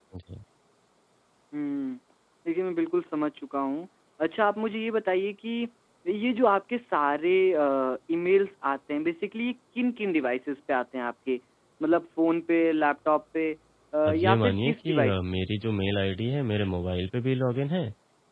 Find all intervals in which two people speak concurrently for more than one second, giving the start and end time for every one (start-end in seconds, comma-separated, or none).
14.1-15.4